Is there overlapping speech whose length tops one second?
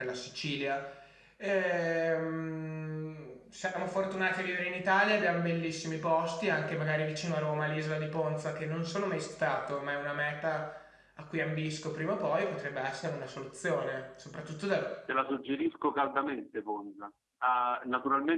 No

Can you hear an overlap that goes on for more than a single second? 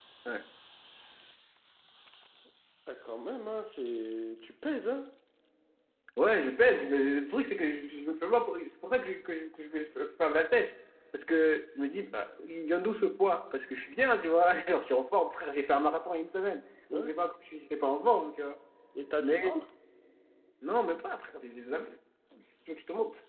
No

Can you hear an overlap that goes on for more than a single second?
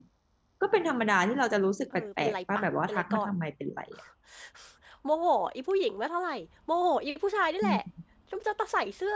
Yes, from 1.9 s

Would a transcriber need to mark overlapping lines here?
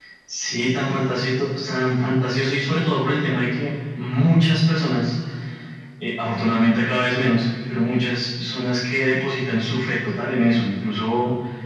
No

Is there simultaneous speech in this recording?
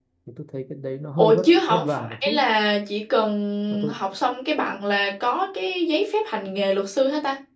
Yes, from 1.2 s

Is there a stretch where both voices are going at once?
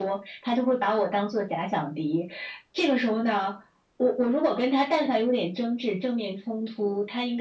No

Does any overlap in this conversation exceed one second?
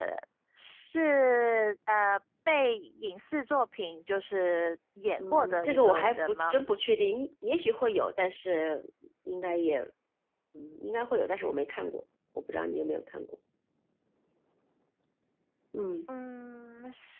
Yes, from 5.2 s

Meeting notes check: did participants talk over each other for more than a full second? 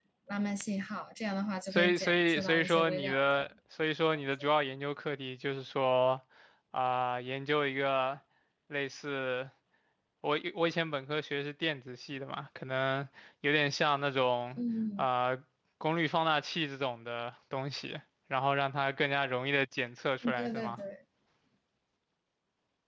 Yes, from 1.7 s

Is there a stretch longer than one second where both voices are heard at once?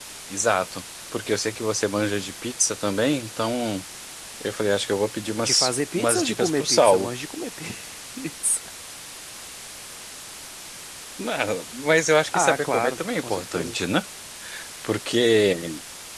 Yes, from 5.4 s

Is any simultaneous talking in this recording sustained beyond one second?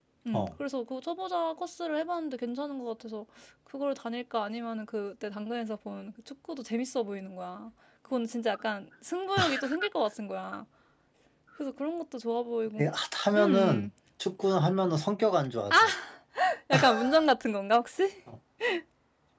No

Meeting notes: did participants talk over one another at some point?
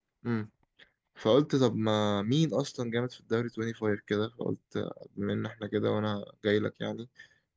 No

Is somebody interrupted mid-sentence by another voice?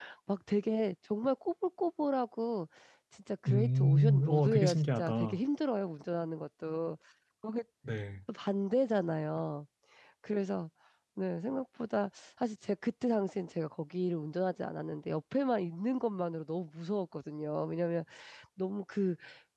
Yes, from 3.5 s

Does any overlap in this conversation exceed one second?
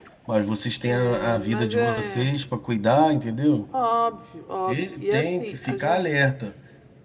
Yes, from 0.9 s

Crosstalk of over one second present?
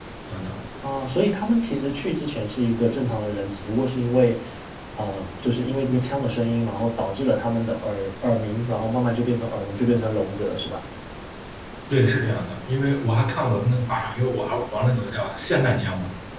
No

